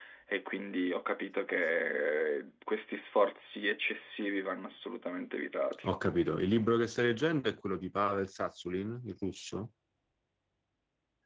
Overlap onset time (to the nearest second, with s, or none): none